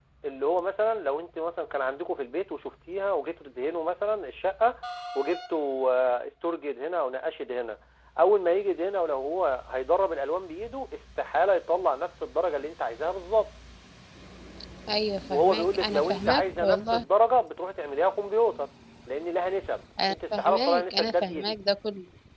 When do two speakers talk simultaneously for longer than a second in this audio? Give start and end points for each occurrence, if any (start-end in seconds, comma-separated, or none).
15.3-17.0, 20.1-21.6